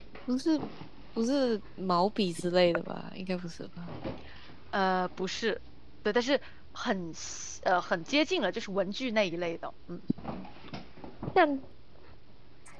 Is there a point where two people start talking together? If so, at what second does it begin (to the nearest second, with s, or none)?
none